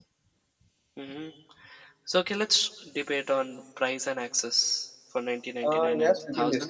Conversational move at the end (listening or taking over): taking over